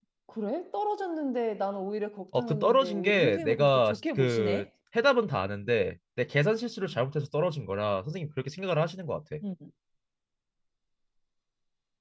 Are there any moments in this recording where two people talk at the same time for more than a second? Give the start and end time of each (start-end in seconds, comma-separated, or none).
2.3-4.6